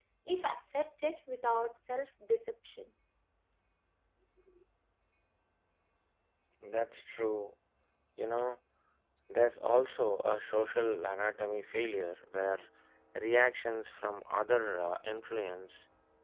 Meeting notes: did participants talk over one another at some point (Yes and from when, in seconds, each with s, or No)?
No